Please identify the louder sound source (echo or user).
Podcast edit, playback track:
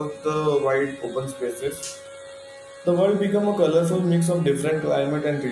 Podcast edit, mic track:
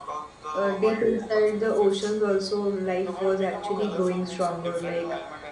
user